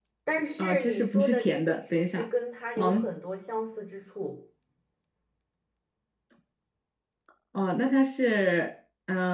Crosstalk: present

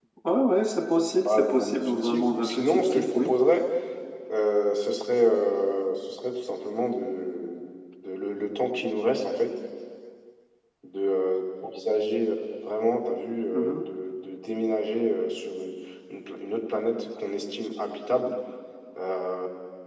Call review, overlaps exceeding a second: present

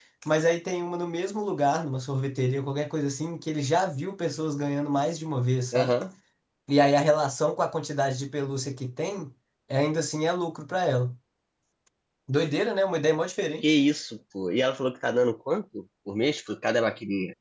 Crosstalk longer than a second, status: none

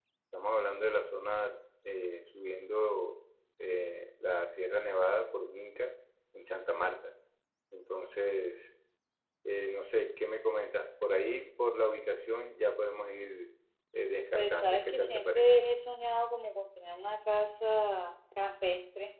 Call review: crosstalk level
present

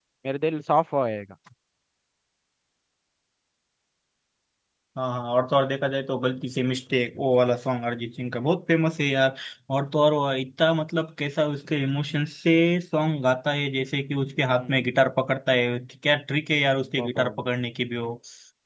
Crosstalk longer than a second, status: none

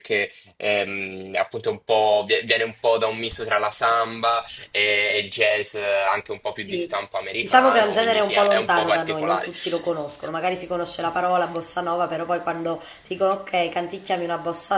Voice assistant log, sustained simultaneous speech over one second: present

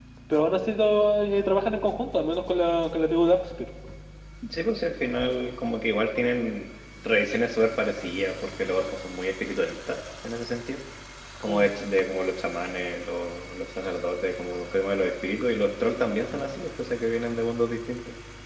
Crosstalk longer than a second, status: none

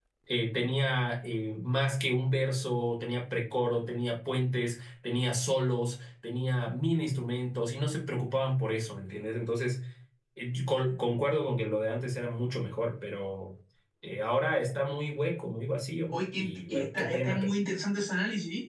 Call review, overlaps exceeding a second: present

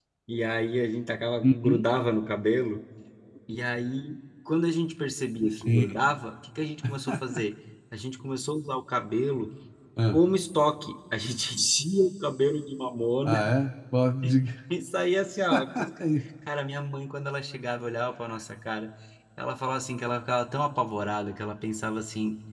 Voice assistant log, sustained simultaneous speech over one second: none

